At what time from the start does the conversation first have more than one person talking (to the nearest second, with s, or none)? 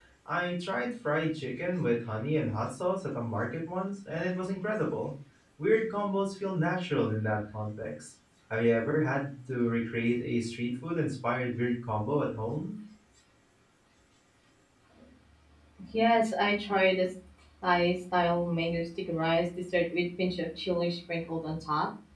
none